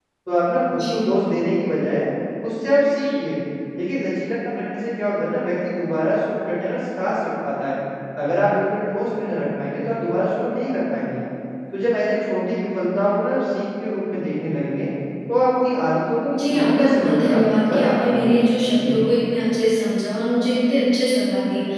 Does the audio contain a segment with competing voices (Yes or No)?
Yes